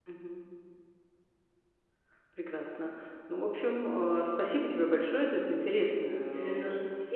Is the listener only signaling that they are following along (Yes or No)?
Yes